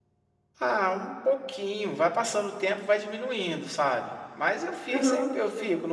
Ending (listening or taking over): listening